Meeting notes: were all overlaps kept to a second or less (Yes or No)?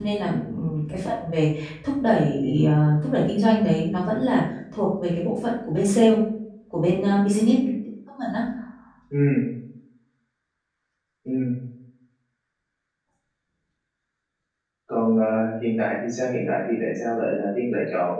Yes